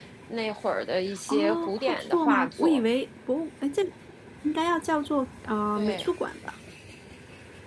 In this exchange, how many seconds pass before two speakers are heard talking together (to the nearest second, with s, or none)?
1 s